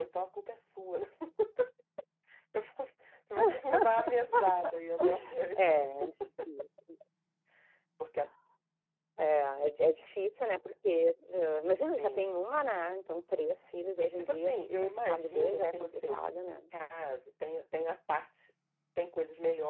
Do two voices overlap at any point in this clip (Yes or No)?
Yes